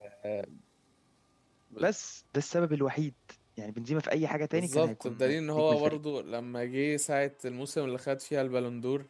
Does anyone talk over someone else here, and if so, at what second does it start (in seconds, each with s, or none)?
4.5 s